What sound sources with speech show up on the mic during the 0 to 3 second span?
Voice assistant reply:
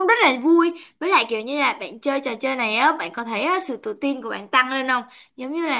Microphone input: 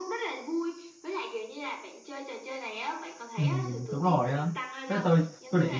echo only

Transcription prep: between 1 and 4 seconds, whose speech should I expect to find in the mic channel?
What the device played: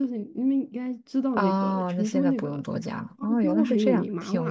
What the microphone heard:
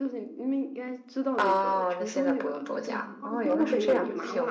both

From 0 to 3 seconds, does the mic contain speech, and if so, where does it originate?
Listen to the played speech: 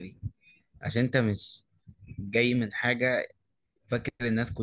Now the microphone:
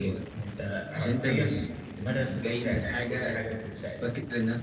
both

